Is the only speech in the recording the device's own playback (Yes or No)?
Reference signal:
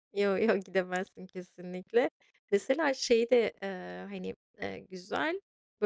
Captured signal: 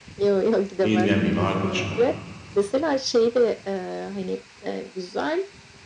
No